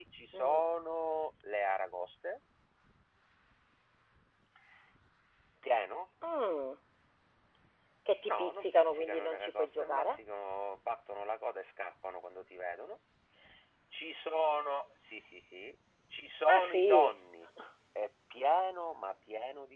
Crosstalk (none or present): present